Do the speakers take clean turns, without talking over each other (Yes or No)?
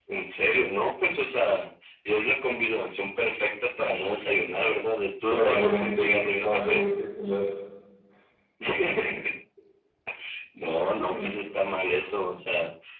No